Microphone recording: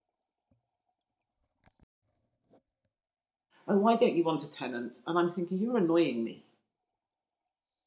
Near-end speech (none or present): present